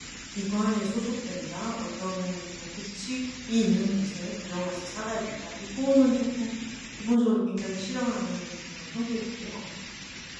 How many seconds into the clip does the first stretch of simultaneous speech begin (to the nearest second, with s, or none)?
none